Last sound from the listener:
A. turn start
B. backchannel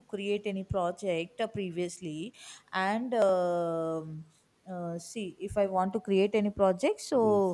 B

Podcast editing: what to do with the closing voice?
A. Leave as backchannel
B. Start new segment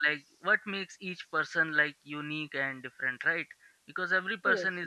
A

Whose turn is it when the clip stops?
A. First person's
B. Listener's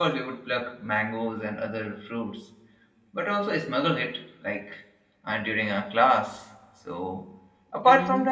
A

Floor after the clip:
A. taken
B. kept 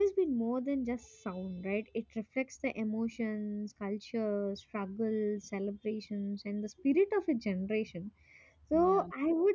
B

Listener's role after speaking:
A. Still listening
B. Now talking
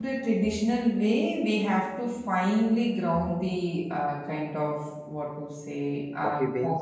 A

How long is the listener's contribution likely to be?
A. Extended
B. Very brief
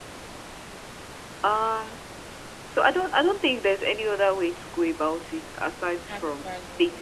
B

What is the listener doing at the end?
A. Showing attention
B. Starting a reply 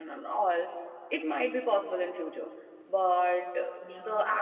A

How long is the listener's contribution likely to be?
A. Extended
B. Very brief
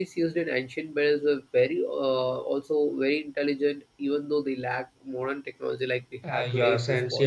A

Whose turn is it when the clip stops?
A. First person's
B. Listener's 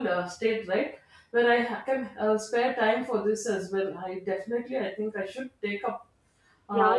B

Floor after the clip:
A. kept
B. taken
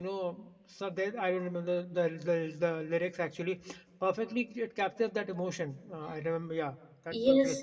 B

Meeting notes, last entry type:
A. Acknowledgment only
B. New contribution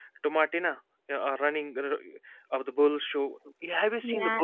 B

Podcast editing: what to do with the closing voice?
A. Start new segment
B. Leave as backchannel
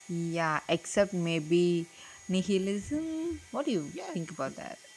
A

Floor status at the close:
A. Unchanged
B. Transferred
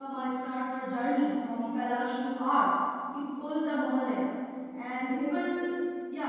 A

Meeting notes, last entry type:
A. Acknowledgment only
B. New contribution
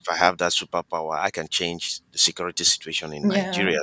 A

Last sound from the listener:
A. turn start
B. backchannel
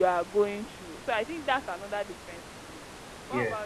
A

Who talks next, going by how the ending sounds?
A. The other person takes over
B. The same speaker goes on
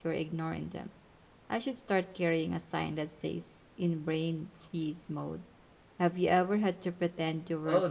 A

